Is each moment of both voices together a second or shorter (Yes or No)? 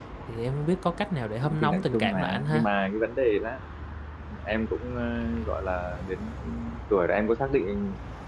No